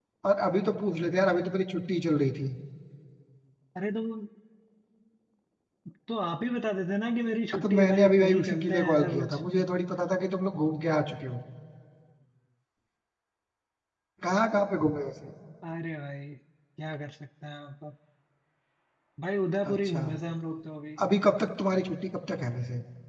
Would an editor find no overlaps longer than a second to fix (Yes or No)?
No